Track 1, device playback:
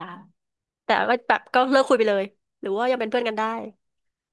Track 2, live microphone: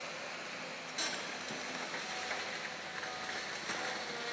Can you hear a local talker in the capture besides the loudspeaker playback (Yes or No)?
No